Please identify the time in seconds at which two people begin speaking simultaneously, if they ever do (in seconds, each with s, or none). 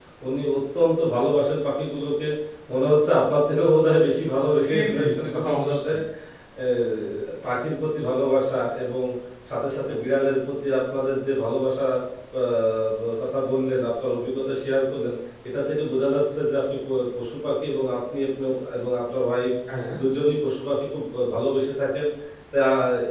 4.7 s